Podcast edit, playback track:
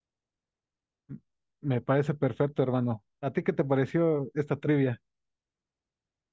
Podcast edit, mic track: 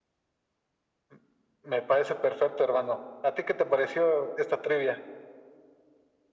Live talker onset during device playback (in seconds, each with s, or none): none